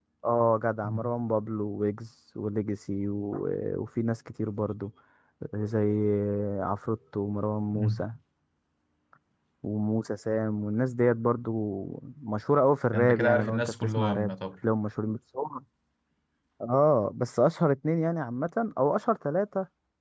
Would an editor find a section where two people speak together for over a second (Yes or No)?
Yes